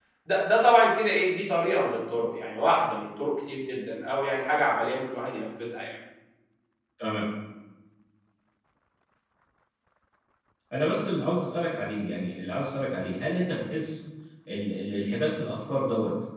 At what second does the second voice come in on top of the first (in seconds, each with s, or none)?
none